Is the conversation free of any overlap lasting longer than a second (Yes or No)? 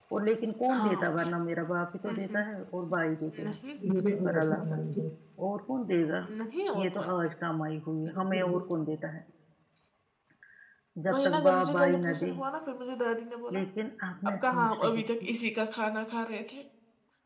No